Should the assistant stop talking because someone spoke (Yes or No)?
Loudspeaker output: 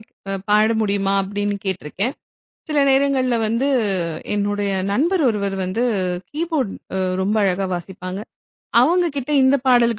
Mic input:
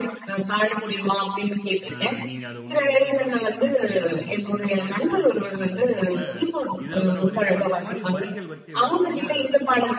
Yes